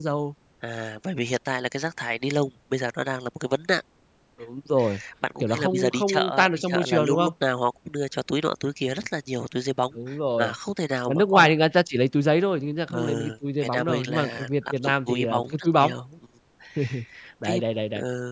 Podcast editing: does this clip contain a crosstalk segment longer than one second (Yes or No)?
Yes